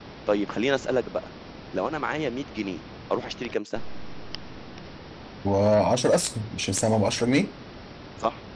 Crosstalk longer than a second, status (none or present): none